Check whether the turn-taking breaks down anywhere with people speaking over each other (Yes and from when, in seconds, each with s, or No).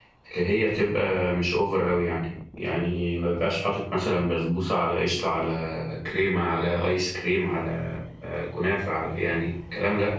No